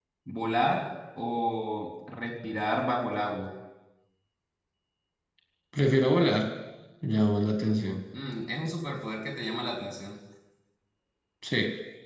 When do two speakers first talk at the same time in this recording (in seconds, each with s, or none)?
none